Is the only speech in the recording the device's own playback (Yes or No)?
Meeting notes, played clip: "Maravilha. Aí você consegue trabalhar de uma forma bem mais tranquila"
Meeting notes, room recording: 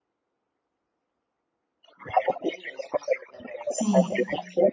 No